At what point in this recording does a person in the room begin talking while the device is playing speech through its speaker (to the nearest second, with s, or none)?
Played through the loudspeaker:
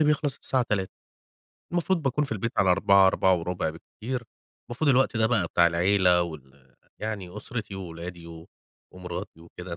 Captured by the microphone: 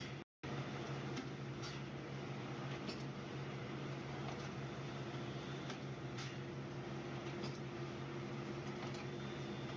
none